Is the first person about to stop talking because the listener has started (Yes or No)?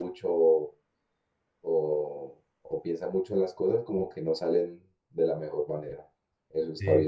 Yes